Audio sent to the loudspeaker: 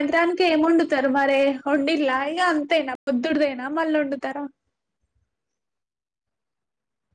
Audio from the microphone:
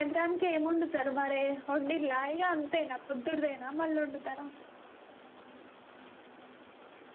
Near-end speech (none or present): none